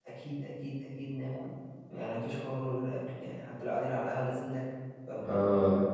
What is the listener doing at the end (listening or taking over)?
taking over